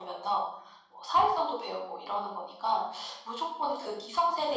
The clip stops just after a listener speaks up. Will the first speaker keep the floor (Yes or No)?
Yes